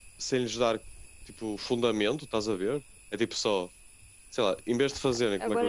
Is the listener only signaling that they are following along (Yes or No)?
No